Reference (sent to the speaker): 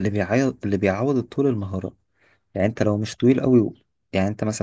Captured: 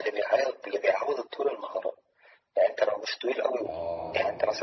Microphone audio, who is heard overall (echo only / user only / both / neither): both